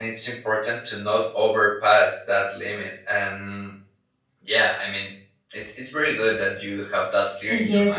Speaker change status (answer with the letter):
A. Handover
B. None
A